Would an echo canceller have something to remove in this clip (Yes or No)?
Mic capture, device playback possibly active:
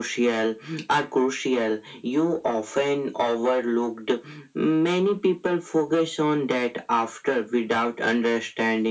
Yes